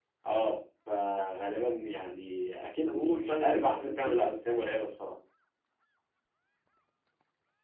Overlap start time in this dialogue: 3 s

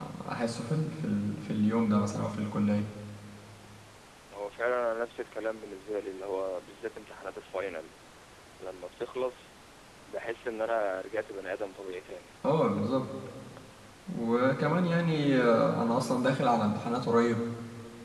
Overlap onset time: none

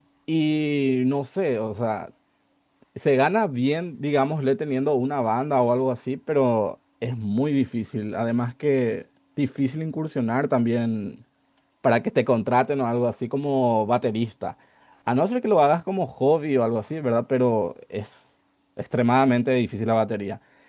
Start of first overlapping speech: none

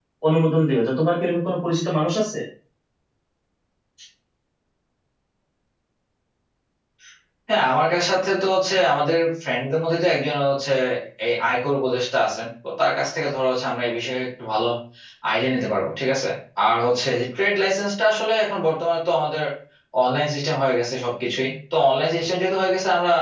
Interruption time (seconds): none

